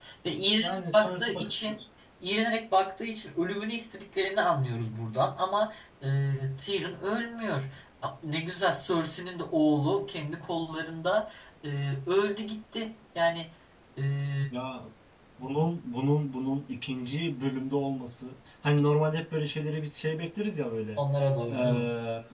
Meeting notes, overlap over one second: present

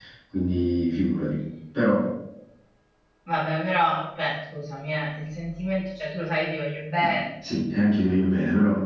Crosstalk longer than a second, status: none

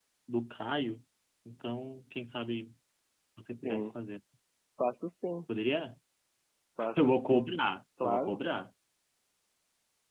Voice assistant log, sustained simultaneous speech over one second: none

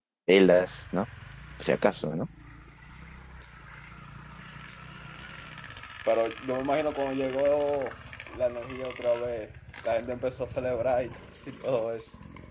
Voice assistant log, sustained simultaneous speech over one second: none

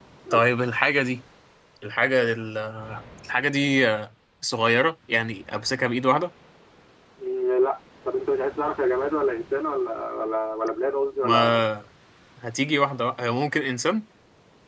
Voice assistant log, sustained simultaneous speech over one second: none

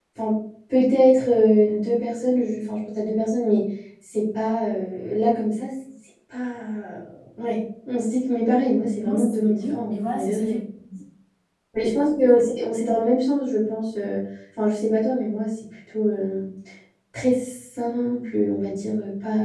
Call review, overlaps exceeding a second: present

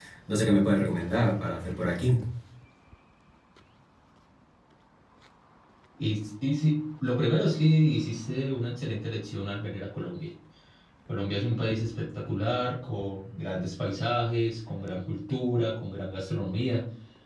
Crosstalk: none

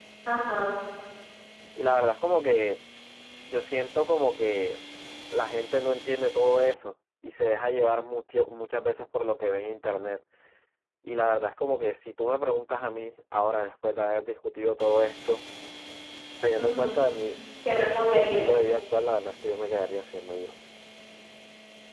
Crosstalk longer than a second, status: none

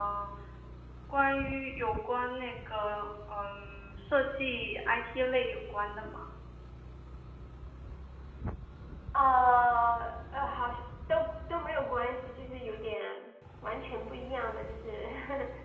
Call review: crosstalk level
none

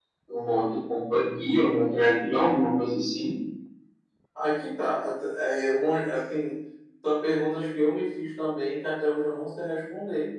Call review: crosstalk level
none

